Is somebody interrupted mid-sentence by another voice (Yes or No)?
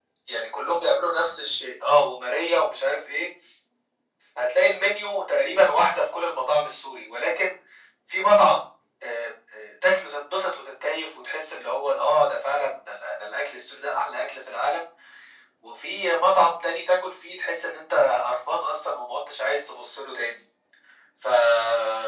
No